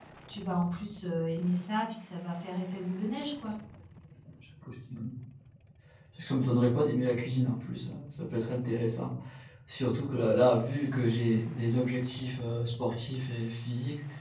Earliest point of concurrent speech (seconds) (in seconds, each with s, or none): none